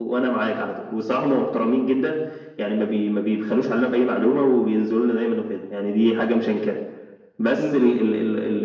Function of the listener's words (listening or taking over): listening